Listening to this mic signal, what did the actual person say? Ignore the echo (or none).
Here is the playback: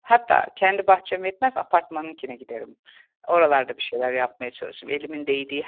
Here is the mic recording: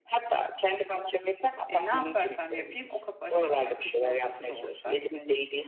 eee, ne yaparsam yapayım o kapı açılacak, kışın ortası da olsa.